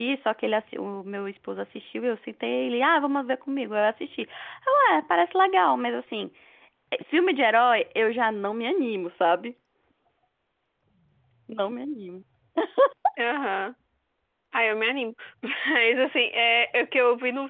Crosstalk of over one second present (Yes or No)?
No